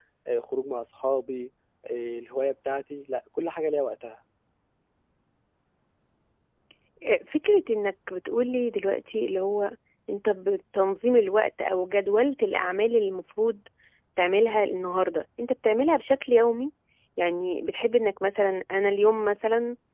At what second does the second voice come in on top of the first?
none

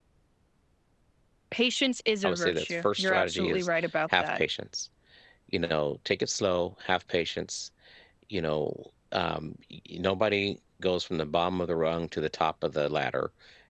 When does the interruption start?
2.2 s

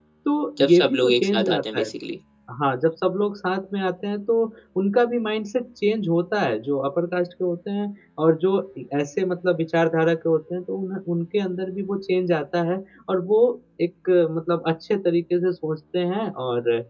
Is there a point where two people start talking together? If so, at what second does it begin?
0.6 s

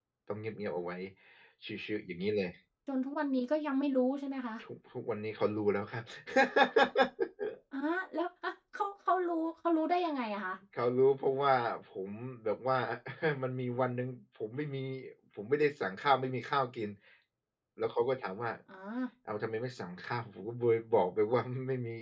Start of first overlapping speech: none

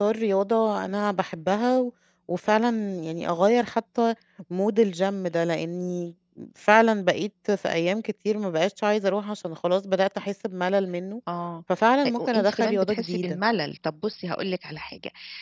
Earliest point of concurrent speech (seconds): 12.1 s

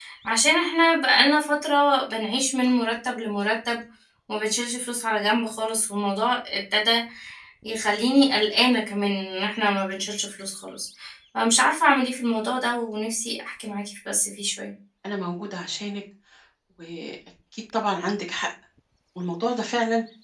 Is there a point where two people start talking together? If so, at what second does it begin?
none

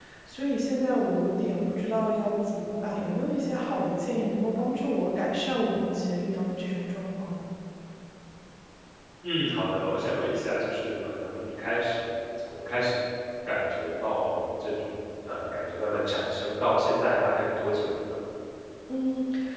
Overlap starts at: none

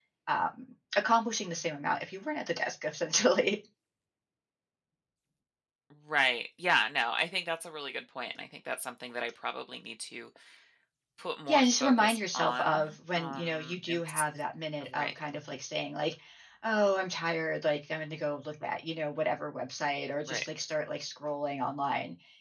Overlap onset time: 11.5 s

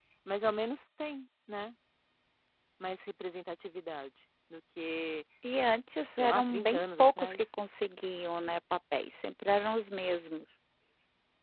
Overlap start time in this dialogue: 6.1 s

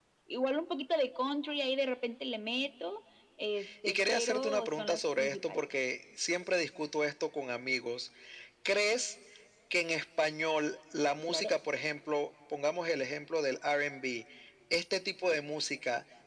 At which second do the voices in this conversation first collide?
3.9 s

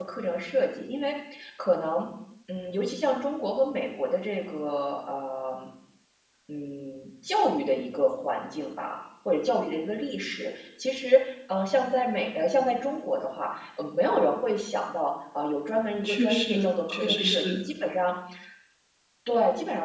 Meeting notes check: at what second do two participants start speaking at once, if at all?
16.0 s

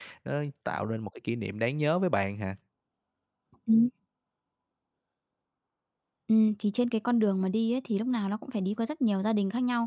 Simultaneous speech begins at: none

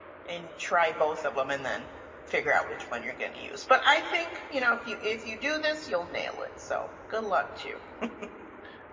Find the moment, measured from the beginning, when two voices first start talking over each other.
none

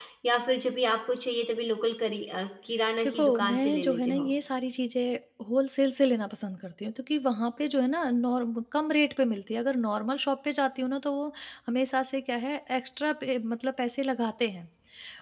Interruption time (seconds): 3.0 s

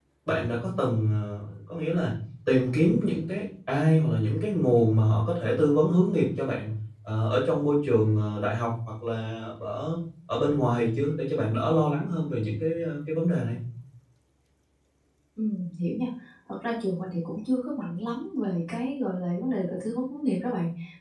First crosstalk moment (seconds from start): none

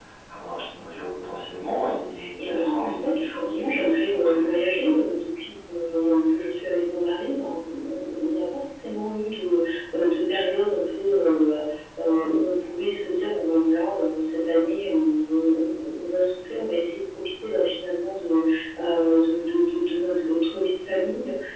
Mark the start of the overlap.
2.4 s

